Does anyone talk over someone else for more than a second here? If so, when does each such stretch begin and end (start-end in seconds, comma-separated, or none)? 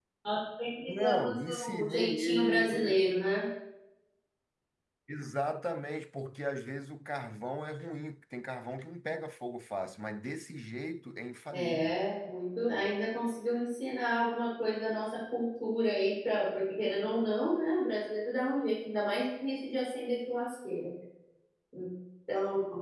0.9-3.1